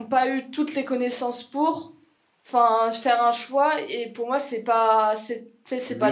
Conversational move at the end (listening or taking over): taking over